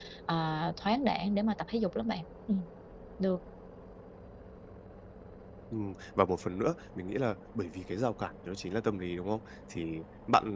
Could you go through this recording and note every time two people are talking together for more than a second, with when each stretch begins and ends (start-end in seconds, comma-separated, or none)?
none